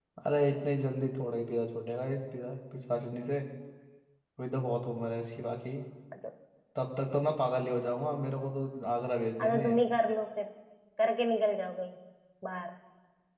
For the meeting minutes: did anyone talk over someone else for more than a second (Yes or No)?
No